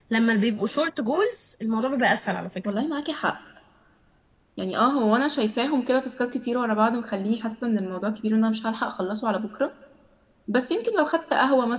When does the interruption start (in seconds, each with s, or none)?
none